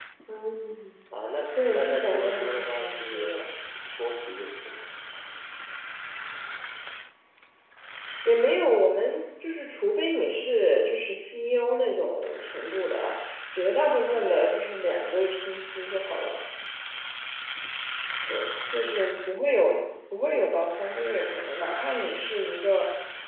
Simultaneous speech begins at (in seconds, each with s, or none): 1.7 s